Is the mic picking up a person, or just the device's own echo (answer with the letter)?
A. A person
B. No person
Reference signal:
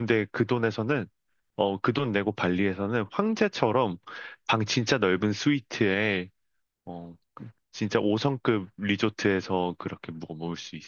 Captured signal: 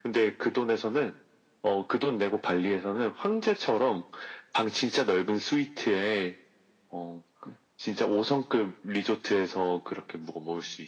B